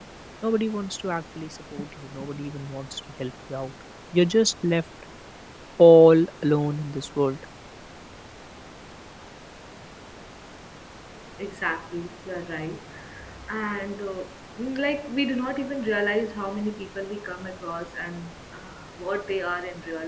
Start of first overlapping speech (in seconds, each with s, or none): none